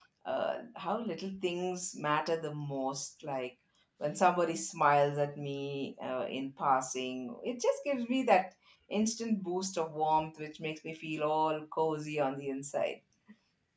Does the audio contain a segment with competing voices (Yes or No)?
No